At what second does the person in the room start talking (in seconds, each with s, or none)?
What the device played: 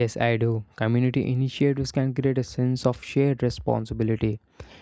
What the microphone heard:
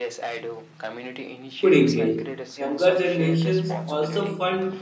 1.6 s